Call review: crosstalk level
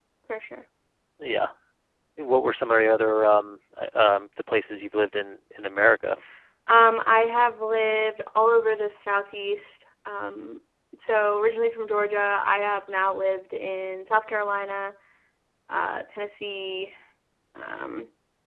none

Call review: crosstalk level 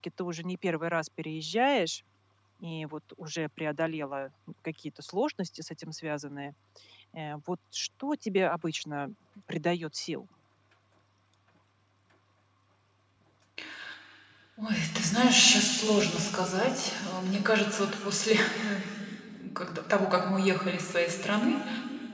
none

